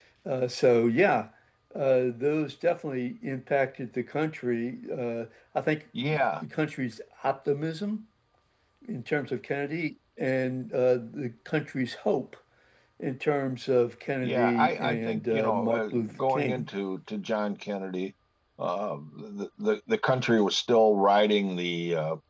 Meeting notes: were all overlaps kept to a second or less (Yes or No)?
No